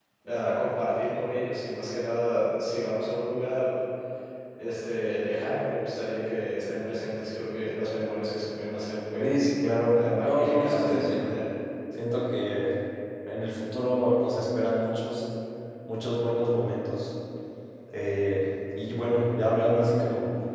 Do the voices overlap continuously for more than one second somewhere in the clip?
Yes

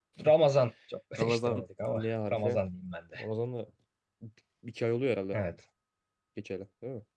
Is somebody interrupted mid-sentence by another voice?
Yes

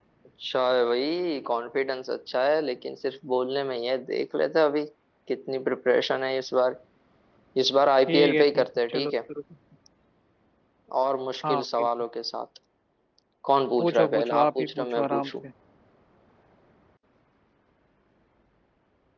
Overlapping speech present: Yes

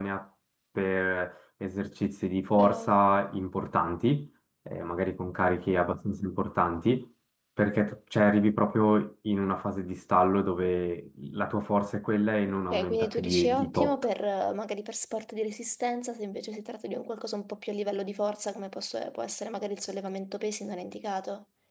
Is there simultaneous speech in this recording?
Yes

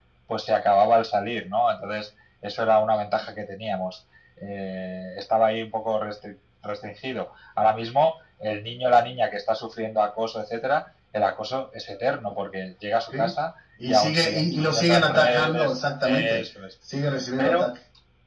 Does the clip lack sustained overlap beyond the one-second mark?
No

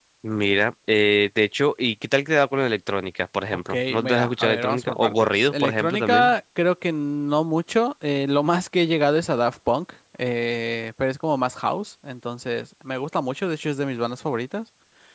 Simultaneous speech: Yes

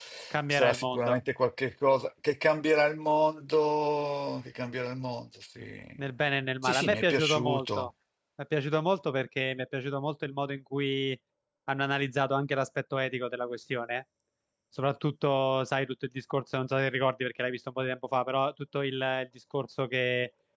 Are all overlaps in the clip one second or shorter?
No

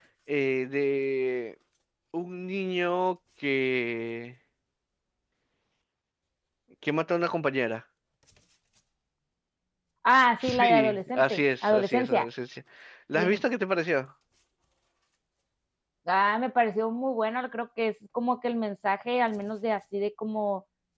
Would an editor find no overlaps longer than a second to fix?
No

